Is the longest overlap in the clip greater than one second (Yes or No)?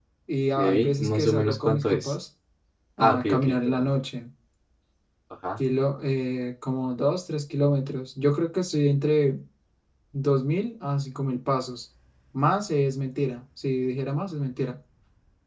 Yes